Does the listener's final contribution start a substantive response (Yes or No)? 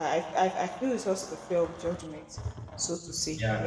Yes